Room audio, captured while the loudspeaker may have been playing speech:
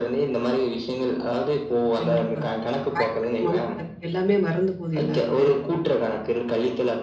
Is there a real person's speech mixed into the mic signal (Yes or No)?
Yes